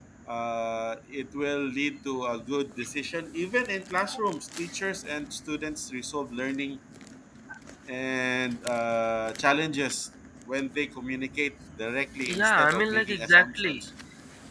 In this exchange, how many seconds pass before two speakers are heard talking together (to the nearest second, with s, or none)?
12 s